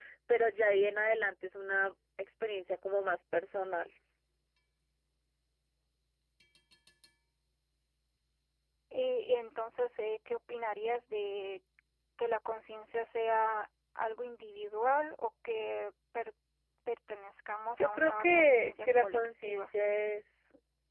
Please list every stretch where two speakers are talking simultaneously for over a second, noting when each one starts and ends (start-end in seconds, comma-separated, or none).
17.8-19.7